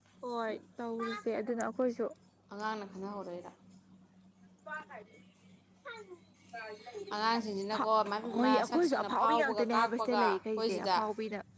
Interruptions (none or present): present